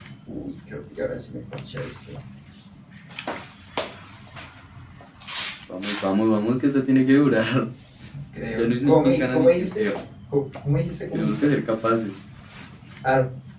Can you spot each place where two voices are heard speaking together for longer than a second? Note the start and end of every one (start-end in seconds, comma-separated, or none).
8.5-9.8